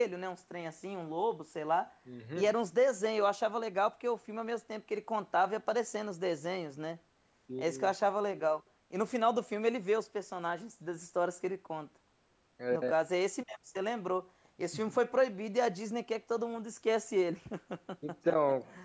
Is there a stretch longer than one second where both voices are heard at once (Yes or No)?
No